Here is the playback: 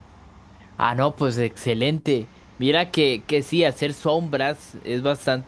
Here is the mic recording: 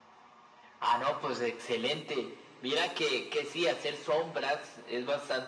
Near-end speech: none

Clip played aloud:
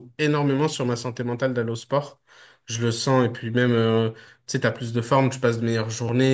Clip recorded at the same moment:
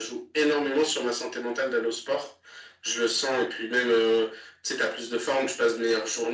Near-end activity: none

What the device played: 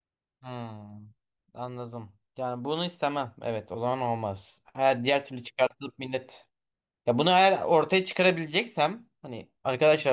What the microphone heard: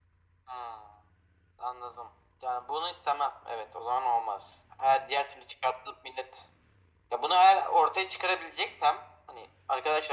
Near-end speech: none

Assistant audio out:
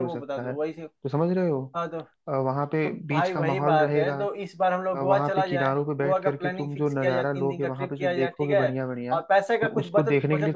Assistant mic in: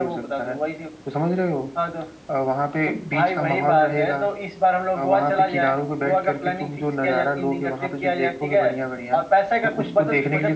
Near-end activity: none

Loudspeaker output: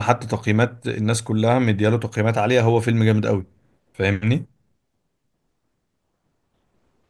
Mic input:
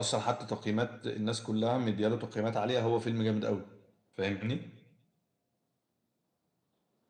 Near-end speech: none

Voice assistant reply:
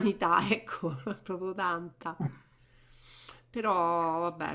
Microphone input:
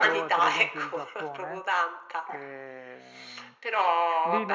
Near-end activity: present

